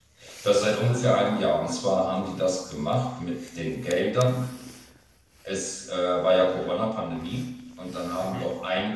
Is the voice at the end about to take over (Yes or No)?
No